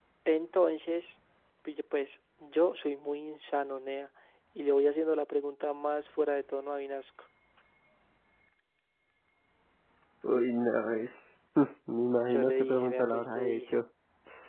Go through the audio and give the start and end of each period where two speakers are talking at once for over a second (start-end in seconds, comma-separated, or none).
12.3-13.8